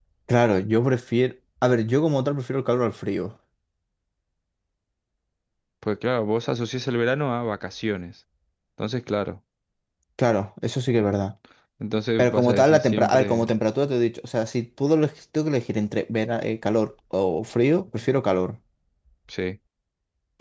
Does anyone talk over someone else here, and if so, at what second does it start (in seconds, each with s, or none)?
12.2 s